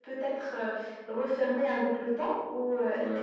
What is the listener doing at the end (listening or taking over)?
listening